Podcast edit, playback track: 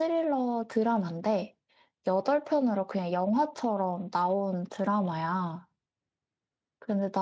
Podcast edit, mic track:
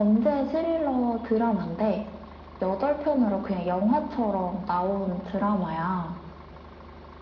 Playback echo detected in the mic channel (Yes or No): Yes